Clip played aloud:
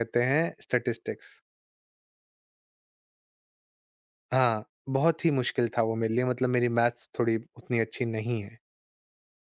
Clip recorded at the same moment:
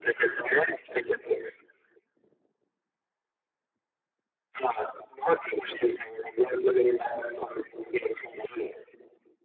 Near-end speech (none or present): none